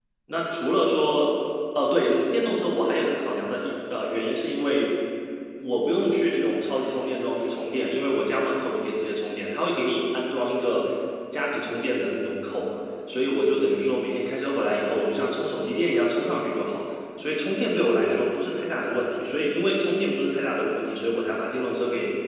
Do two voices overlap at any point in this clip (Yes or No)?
No